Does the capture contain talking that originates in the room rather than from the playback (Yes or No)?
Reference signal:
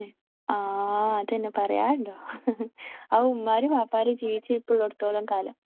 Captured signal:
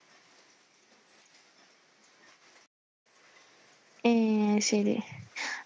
Yes